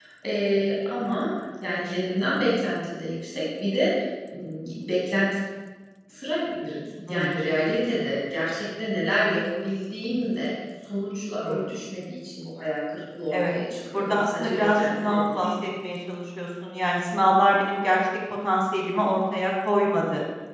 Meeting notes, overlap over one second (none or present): present